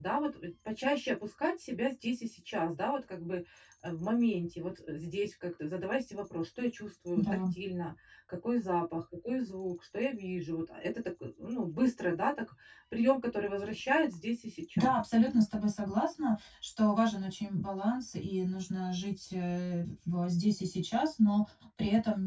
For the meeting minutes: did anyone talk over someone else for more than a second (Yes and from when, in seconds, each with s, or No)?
No